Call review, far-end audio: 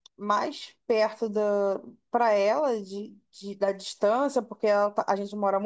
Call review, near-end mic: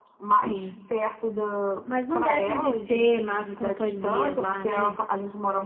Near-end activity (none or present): present